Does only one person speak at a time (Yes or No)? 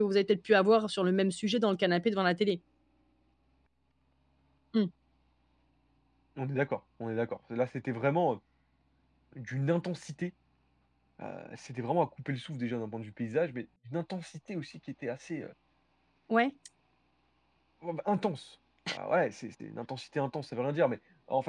Yes